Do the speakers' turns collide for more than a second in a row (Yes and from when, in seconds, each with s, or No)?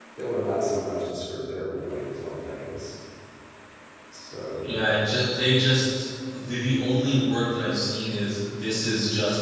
No